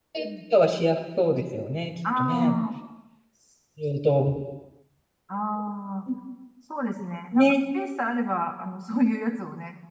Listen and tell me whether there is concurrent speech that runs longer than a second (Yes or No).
No